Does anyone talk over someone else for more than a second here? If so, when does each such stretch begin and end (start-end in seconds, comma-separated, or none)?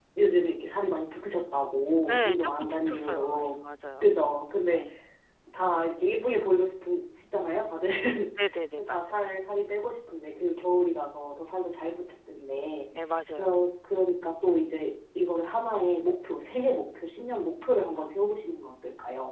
2.1-3.5